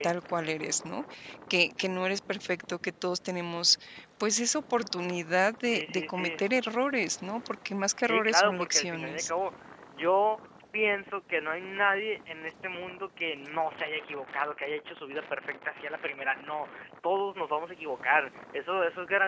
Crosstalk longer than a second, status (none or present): present